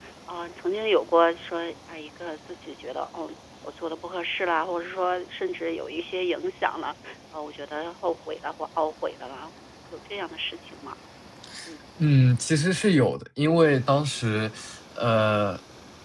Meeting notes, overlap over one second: none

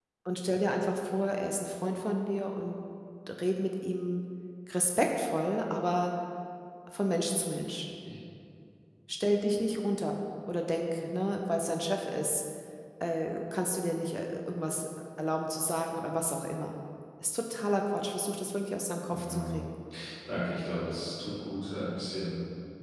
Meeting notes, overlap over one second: none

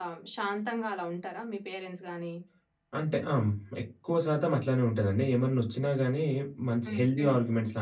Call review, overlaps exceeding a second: none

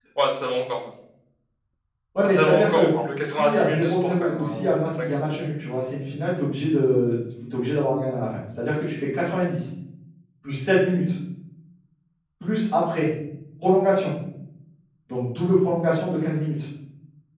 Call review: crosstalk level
present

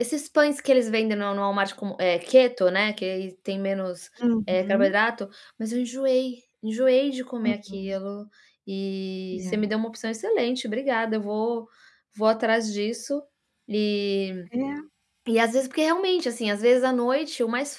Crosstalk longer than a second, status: none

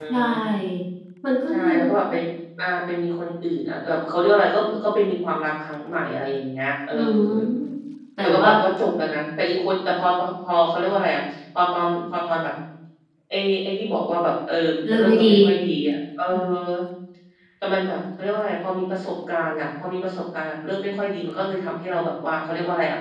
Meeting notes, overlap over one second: none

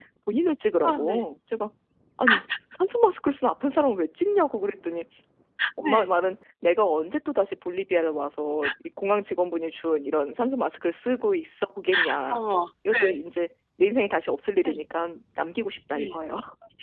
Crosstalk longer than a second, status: none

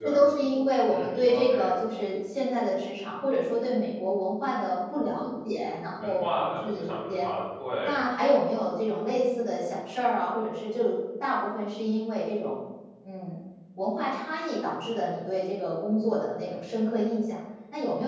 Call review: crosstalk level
present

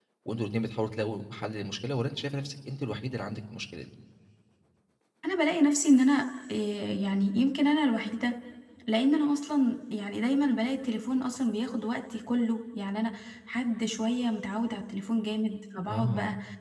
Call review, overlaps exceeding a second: none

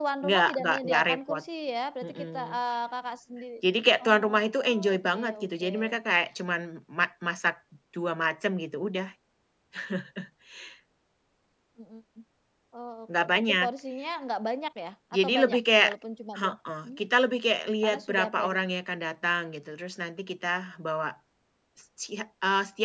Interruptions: present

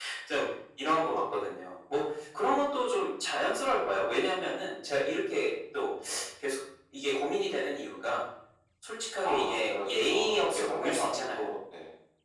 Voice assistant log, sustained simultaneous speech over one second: present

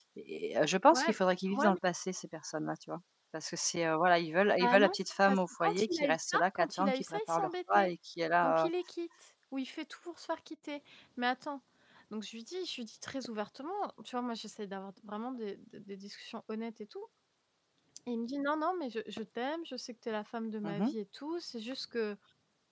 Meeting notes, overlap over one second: present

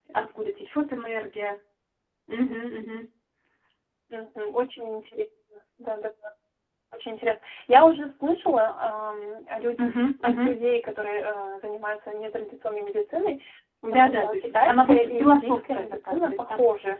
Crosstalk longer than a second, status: present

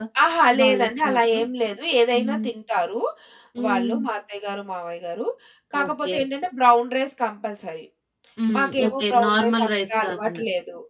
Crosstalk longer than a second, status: present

